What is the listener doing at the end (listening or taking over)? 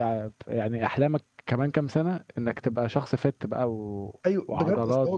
taking over